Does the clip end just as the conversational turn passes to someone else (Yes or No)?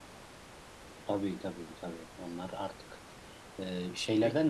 No